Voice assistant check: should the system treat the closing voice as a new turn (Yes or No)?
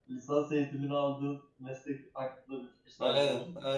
Yes